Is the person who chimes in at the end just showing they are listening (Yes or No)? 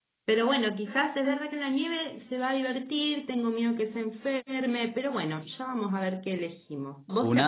Yes